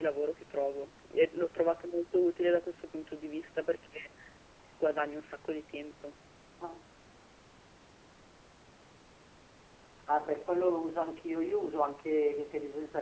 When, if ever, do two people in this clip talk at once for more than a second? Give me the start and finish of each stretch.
none

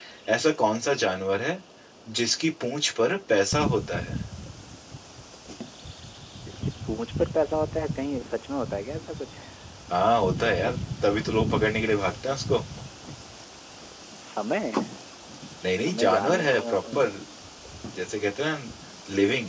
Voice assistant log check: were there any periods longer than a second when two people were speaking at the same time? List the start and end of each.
15.7-17.0

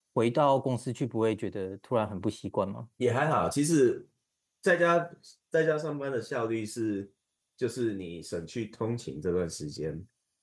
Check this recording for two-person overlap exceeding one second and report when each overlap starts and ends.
none

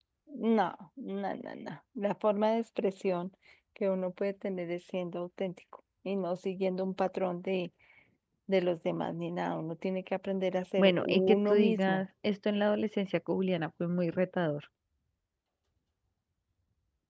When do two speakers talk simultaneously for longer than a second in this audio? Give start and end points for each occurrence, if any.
10.8-12.0

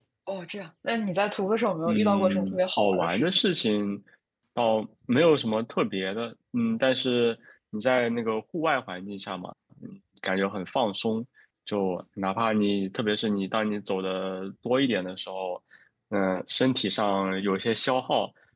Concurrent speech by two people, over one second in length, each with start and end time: 1.8-3.4

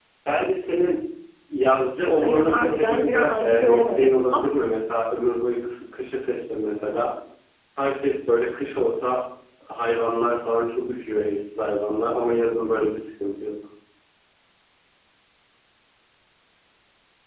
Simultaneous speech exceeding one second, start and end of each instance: 2.2-4.5

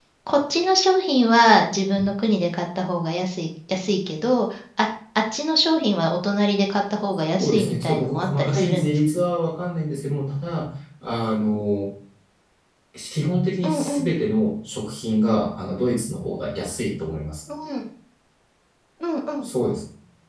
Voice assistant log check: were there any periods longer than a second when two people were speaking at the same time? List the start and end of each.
7.4-9.0

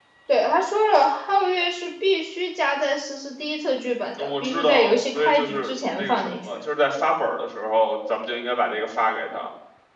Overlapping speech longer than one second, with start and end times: 4.2-6.6

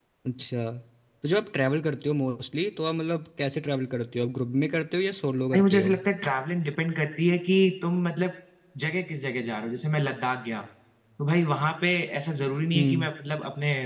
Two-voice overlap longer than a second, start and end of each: none

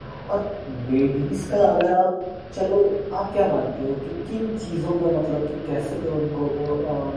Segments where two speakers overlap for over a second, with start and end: none

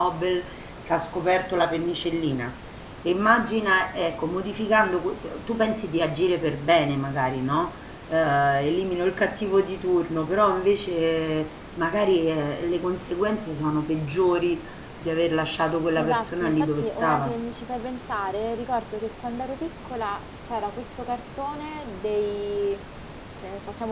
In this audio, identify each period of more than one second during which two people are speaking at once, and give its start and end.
15.9-17.4

